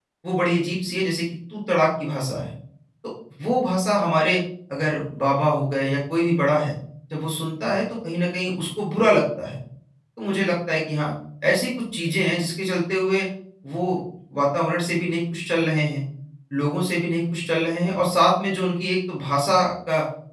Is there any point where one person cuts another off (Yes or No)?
No